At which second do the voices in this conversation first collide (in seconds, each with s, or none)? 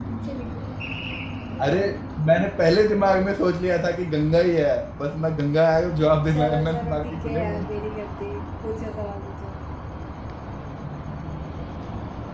6.3 s